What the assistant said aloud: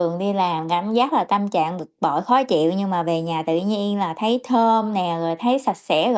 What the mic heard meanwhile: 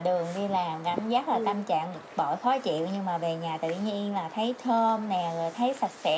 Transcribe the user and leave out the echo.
Ừm.

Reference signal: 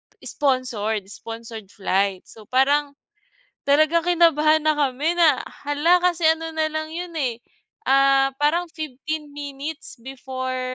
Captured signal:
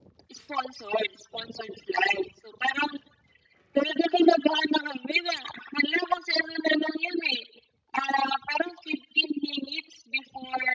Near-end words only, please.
none

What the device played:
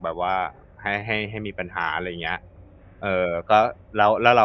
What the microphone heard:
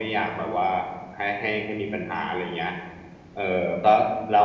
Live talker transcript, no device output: none

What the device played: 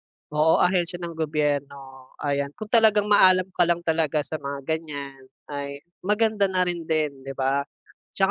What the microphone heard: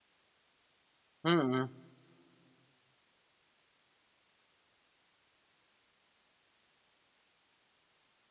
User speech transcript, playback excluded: Mm.

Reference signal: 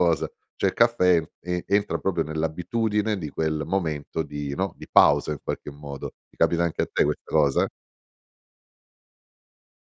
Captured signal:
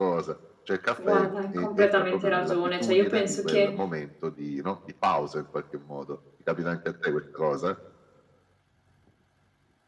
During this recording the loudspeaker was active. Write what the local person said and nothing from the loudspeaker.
To guarda, è completamente ragione. Cioè, io penso che

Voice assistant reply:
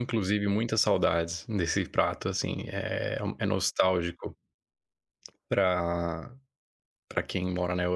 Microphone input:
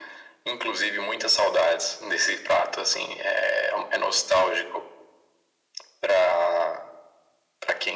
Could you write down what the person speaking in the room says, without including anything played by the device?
none

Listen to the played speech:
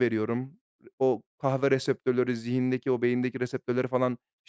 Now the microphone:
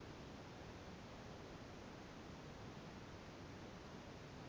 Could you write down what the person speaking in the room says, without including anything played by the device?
none

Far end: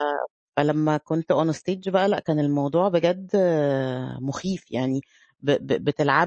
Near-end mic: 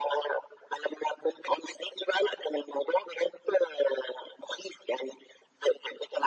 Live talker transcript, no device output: none

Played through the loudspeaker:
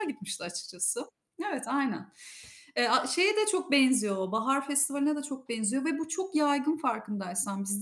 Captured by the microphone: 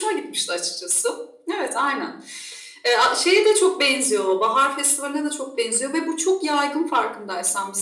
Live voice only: none

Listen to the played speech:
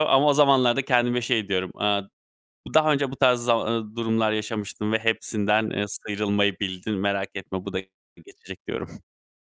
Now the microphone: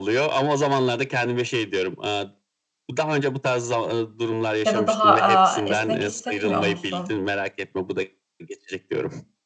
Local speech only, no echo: ya da daha, aaa, esnek hissetmiyor musun?

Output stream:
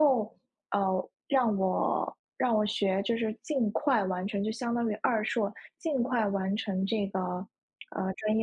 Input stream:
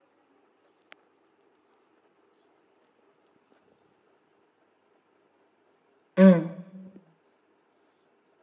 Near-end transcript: 嗯。

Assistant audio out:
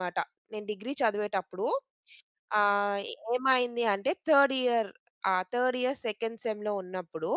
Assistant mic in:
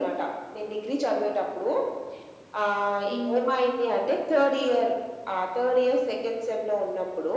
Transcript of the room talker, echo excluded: హ్మ్.

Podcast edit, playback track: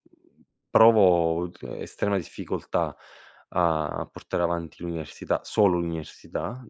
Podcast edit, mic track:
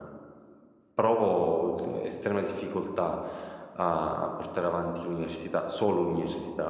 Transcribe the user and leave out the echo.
none

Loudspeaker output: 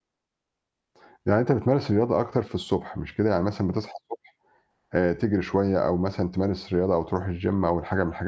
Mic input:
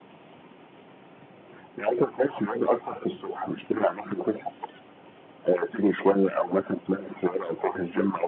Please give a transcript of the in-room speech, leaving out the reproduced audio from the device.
none

